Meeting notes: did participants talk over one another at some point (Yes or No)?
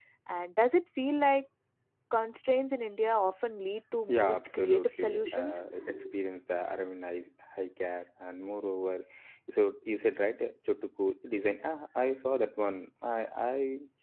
Yes